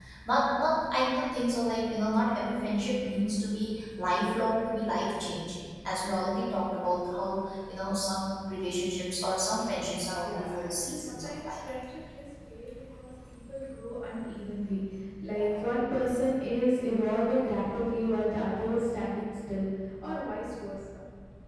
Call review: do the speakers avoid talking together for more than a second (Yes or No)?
No